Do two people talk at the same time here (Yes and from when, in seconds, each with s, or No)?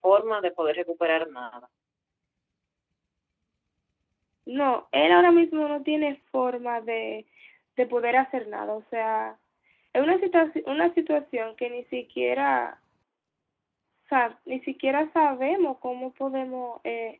No